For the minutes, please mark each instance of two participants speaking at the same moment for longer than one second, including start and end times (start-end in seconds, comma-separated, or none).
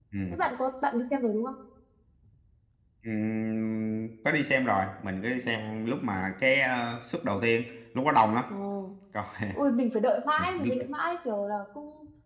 none